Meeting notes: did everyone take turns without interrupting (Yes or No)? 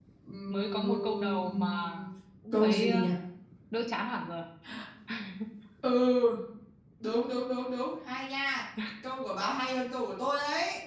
No